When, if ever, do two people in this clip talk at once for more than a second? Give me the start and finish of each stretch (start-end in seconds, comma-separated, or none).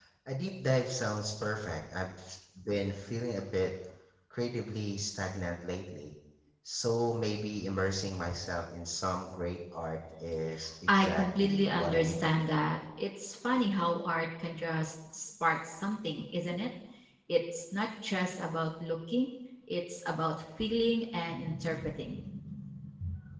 10.9-12.3